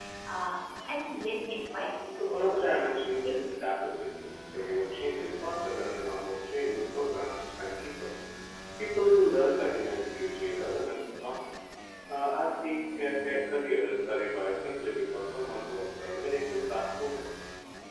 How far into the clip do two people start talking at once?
2 s

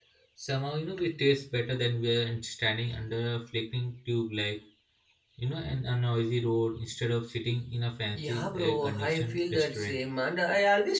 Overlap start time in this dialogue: 8 s

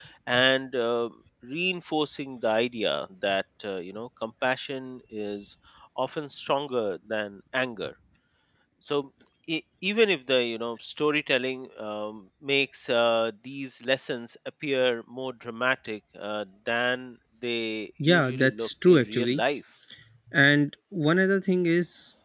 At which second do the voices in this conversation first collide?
18 s

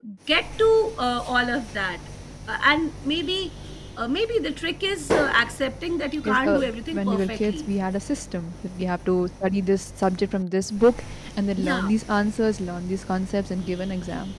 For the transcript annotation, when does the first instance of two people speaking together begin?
6 s

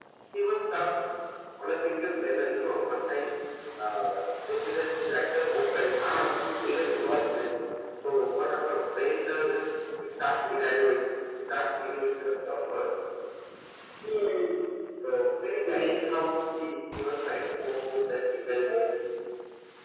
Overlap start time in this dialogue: 6 s

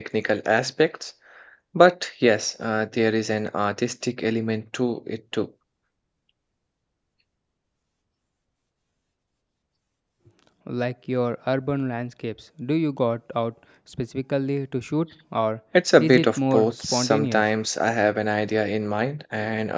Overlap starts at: 16 s

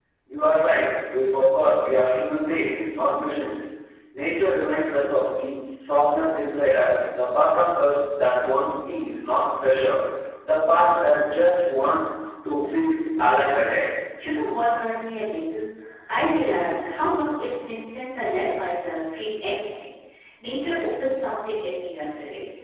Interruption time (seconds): none

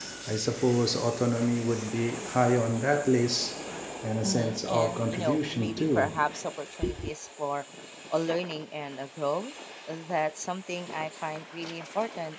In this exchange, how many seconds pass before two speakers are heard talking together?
4 s

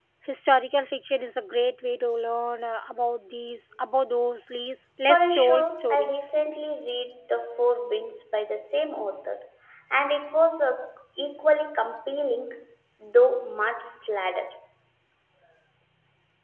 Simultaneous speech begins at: 5 s

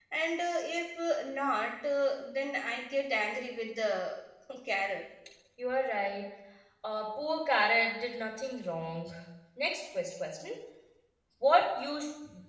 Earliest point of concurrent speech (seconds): none

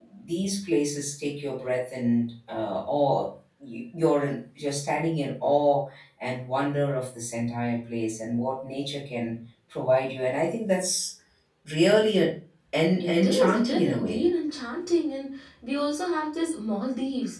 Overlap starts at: 13 s

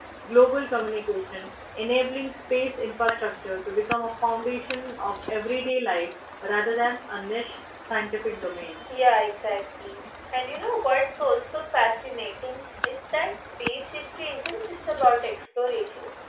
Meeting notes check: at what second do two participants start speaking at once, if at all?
none

